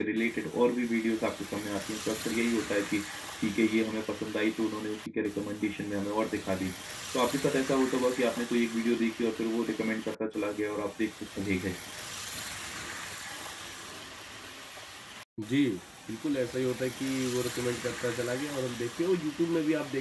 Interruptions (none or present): none